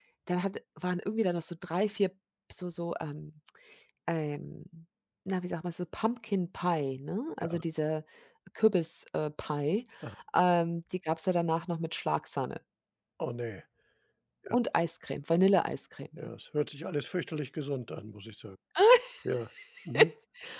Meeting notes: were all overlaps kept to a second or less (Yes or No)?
Yes